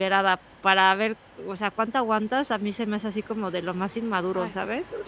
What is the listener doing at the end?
taking over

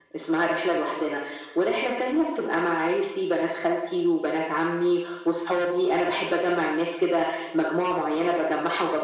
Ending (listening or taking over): listening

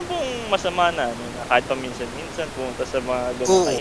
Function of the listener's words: taking over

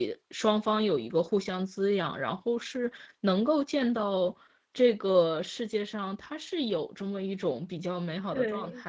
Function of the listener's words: taking over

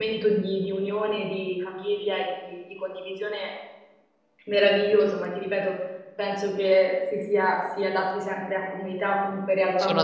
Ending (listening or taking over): taking over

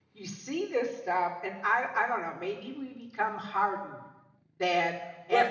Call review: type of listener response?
listening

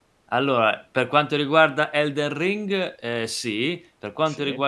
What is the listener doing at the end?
listening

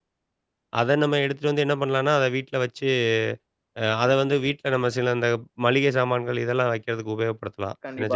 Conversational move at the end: taking over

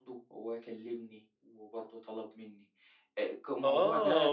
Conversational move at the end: taking over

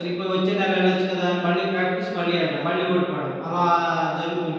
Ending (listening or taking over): taking over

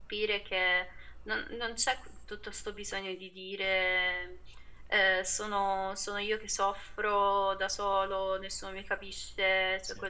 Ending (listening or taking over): listening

